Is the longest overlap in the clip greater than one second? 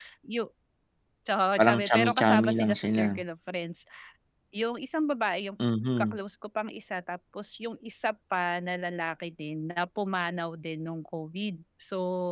Yes, from 1.6 s

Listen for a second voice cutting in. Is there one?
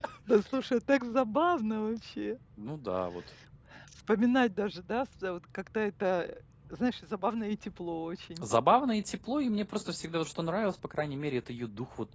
No

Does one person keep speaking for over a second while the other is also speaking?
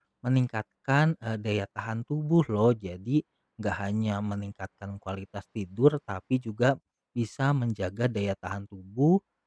No

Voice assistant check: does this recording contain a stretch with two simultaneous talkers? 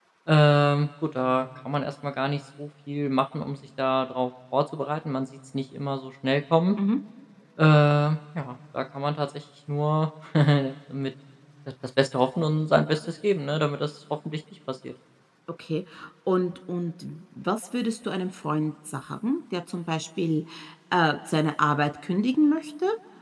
No

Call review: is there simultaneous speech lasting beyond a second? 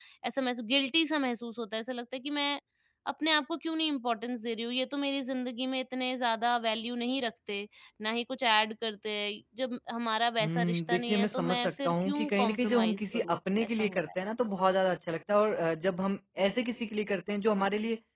Yes, from 10.4 s

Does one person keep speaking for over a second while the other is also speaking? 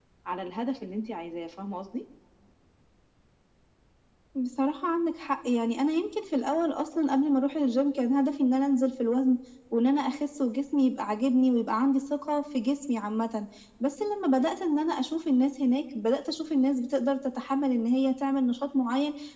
No

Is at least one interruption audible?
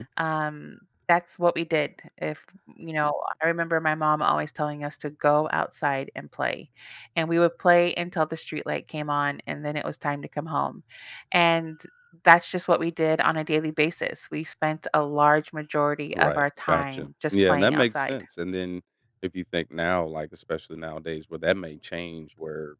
Yes, from 16.1 s

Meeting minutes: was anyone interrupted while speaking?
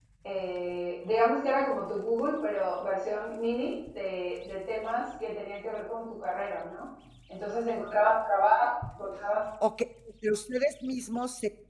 No

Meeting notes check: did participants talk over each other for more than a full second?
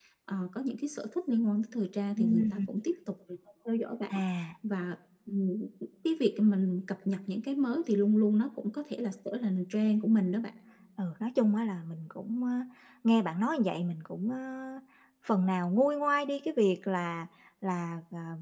No

